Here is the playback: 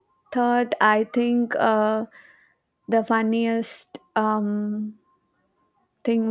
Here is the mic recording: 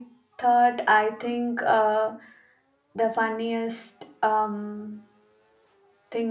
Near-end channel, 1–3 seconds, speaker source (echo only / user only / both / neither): echo only